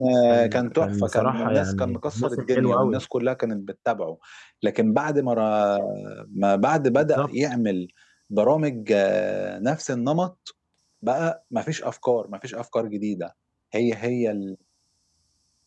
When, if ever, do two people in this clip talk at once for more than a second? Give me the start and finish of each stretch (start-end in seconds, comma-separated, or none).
0.5-3.0